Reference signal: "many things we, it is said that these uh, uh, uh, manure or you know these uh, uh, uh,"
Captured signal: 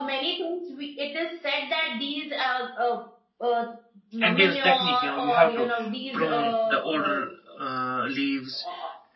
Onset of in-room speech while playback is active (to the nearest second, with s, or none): 4 s